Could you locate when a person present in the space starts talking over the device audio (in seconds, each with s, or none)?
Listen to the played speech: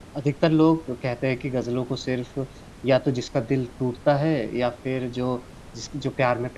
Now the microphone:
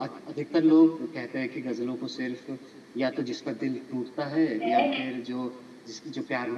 4.6 s